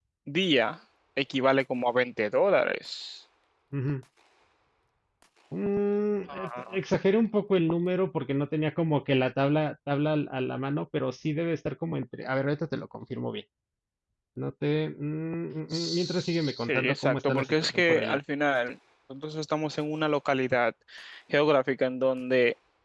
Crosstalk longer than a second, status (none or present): present